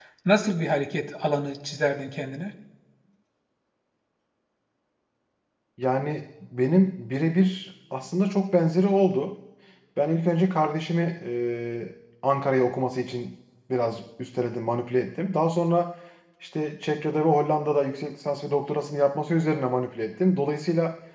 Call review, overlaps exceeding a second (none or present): none